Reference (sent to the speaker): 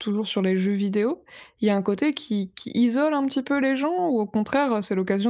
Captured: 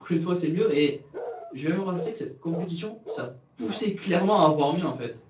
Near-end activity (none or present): present